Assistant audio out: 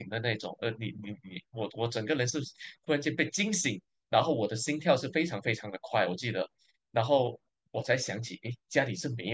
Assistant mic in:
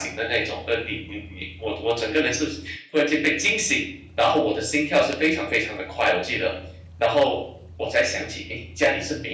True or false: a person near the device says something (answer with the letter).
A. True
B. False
B